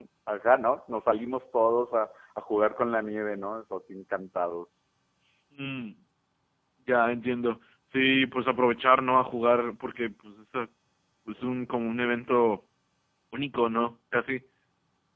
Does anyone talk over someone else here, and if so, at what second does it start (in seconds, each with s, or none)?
none